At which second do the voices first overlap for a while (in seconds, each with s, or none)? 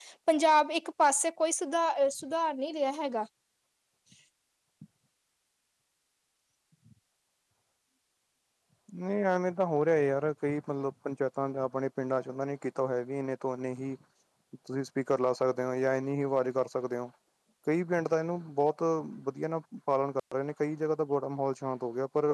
none